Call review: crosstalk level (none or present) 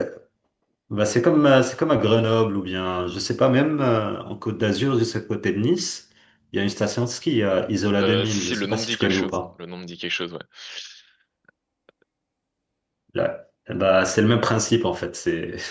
present